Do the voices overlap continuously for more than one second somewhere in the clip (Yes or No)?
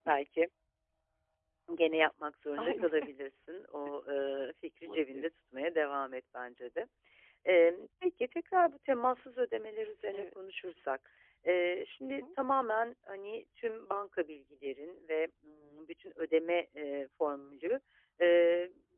No